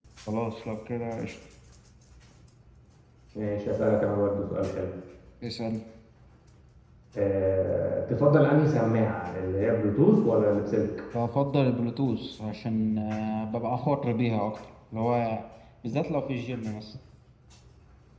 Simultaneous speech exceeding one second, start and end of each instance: none

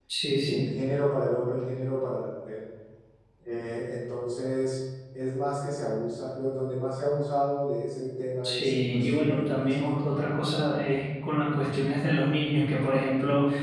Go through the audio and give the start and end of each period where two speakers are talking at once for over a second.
8.4-10.4

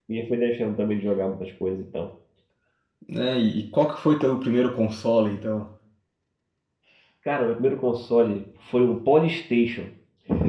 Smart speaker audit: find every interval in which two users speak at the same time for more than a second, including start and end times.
none

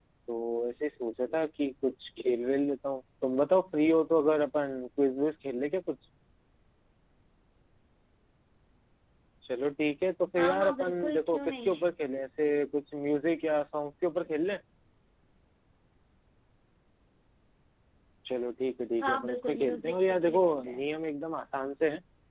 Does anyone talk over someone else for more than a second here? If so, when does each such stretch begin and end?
10.4-11.7, 19.0-20.8

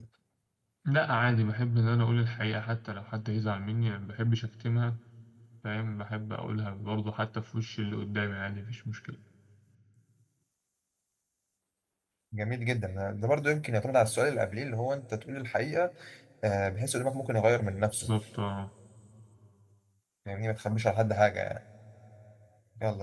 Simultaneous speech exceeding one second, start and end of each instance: none

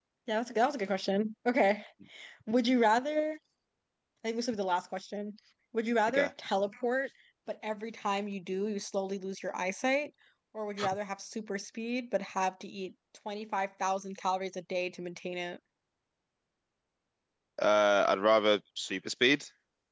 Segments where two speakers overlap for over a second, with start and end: none

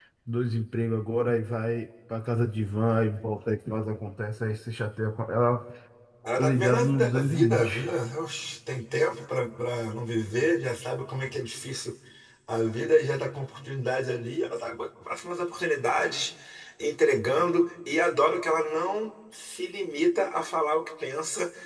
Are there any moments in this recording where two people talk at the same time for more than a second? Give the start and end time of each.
6.4-7.7

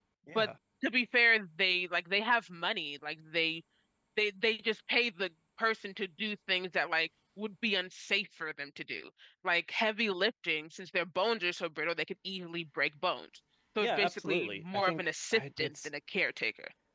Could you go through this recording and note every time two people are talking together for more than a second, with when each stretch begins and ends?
13.8-15.9

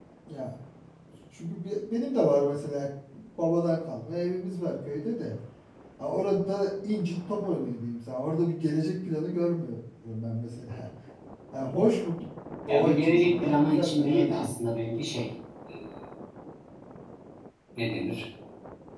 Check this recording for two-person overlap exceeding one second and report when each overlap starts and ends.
12.7-14.5

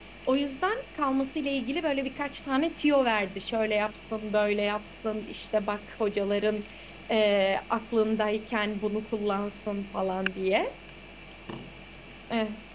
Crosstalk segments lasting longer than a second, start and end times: none

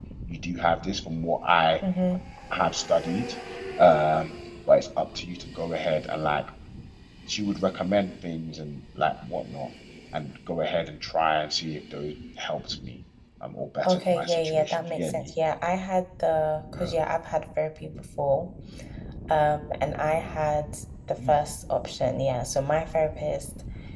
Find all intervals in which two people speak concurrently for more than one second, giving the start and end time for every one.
13.8-15.3

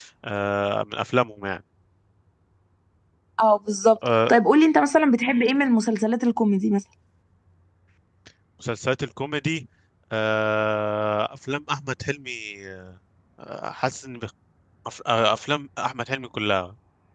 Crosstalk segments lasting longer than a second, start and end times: none

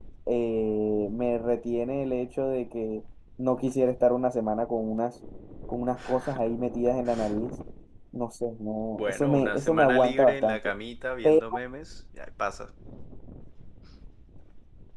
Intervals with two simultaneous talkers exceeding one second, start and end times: 9.0-10.6

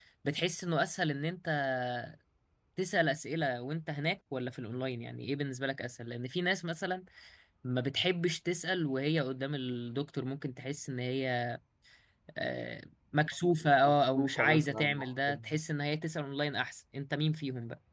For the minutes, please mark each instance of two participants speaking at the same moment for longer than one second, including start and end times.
13.8-15.5

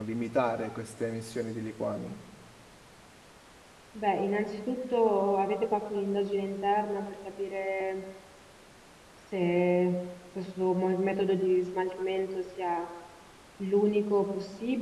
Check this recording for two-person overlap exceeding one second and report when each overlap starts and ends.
none

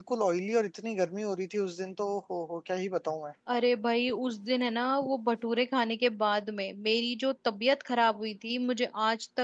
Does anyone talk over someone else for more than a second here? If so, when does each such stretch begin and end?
none

